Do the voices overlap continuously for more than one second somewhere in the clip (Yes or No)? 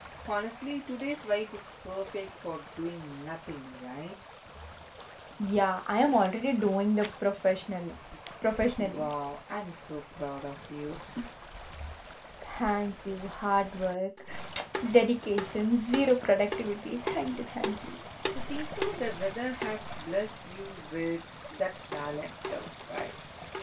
No